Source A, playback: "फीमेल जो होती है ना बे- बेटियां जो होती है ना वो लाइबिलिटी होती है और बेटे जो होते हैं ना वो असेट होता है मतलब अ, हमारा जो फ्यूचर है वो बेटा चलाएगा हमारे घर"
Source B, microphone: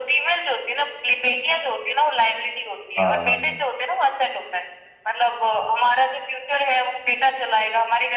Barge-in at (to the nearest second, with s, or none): 3 s